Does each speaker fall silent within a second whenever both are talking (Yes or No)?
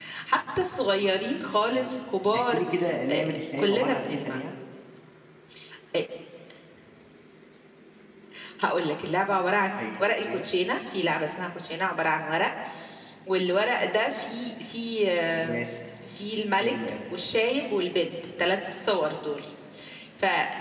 No